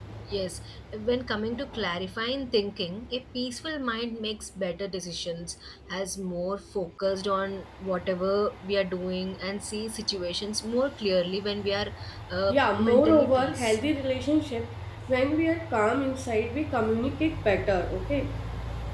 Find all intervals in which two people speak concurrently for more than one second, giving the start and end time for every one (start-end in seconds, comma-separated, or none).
12.5-13.8